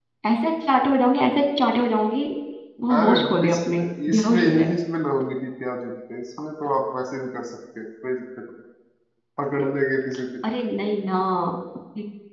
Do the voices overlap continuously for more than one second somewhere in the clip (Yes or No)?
Yes